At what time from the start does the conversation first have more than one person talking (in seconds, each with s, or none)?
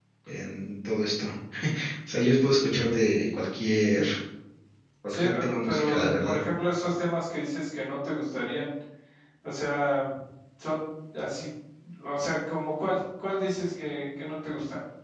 5.1 s